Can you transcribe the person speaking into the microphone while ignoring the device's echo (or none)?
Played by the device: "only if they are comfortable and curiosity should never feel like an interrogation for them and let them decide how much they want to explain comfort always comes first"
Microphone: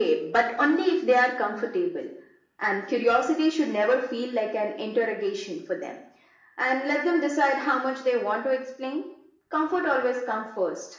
none